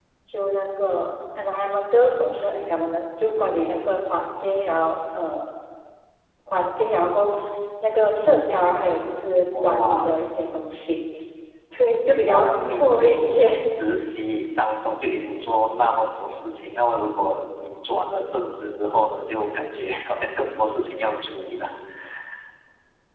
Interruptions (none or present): present